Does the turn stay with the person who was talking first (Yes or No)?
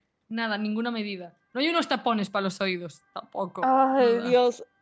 No